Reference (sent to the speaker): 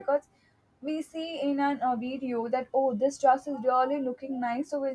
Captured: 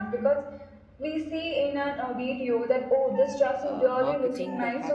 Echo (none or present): present